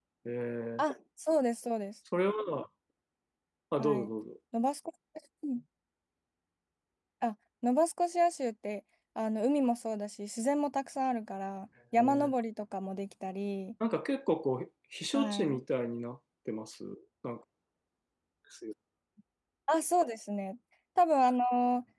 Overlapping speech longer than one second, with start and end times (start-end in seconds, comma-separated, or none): none